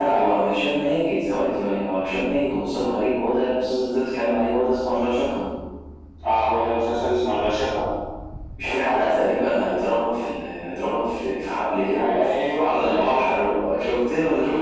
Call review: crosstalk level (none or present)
present